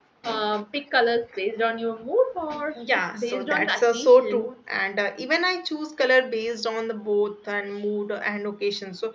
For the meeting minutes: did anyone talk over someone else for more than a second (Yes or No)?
Yes